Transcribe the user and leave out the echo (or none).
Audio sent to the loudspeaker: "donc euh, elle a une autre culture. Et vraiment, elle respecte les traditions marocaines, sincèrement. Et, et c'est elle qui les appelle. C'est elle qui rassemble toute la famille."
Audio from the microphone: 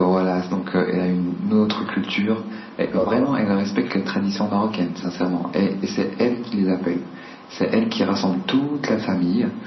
d'accord.